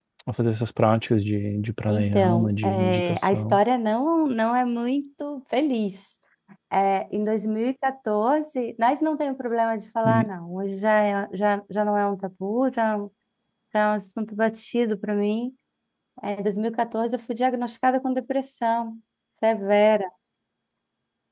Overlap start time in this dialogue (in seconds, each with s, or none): 1.9 s